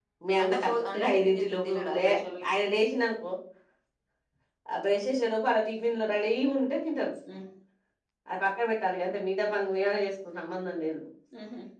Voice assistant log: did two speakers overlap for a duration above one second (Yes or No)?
Yes